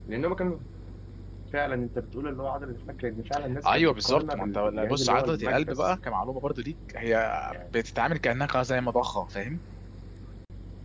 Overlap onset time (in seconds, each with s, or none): 3.6 s